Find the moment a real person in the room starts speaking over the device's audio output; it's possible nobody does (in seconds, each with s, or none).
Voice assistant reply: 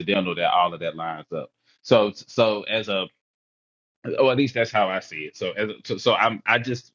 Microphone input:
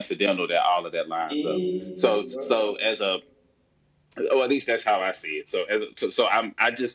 1.3 s